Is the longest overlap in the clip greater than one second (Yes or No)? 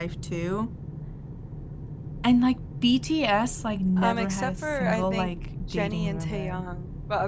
Yes